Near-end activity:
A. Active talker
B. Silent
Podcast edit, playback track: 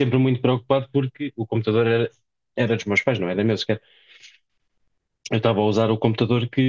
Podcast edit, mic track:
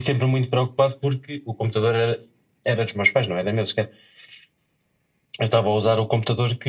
B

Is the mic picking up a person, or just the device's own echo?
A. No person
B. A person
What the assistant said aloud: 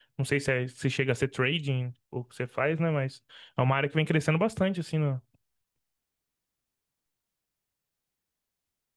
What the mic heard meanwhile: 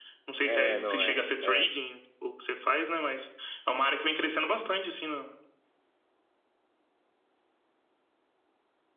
B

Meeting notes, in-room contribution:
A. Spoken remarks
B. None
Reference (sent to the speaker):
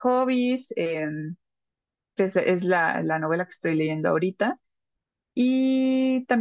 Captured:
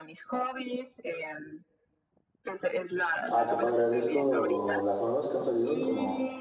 A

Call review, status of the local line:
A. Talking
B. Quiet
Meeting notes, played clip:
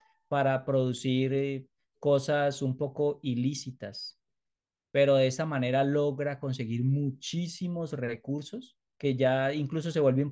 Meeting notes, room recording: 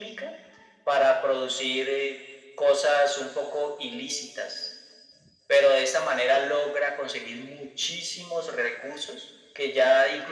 B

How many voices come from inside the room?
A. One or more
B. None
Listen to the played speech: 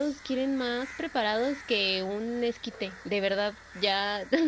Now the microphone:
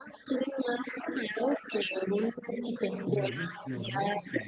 A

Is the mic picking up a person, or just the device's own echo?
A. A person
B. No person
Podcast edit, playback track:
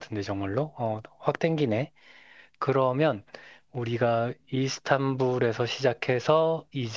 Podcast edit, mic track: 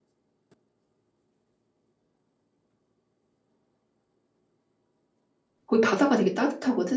A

